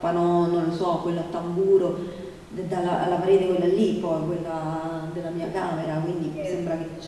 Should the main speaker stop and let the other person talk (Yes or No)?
No